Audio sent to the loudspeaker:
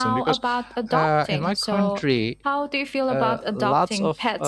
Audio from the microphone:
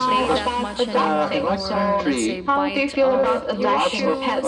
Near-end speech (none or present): present